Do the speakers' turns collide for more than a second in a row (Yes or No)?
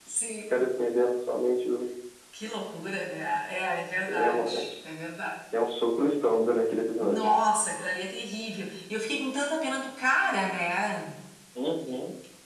No